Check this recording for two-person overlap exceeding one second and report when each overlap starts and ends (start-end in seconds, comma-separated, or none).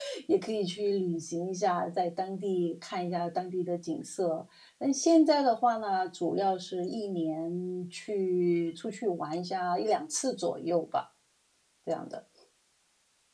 none